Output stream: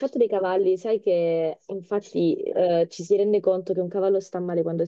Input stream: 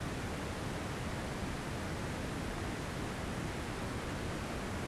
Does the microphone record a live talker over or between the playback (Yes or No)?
No